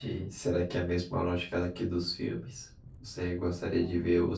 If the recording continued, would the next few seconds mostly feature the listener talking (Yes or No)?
No